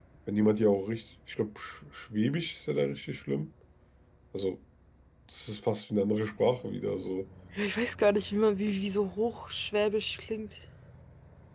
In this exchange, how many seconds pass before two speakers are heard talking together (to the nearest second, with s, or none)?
none